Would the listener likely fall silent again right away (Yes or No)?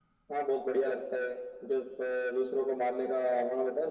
Yes